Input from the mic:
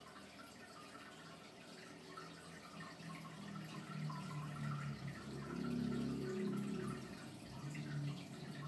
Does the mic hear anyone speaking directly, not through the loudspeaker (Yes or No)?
No